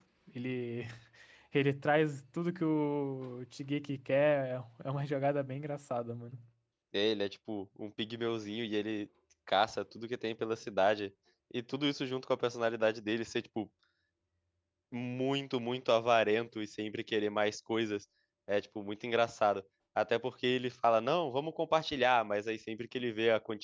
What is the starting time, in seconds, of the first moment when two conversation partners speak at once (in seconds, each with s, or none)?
none